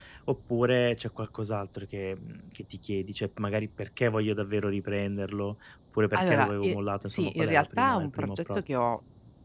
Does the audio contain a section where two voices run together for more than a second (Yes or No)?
Yes